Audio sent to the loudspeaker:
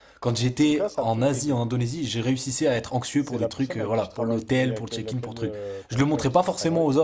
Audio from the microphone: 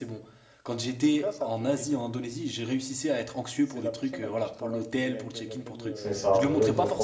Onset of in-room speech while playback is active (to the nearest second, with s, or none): 6 s